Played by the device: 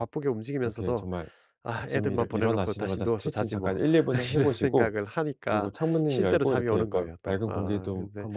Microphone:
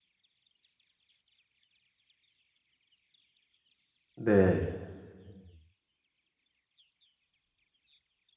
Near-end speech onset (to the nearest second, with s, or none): 4 s